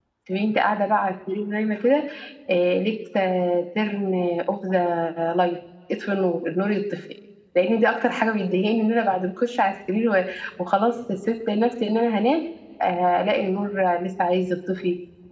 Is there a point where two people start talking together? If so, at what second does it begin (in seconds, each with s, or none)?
none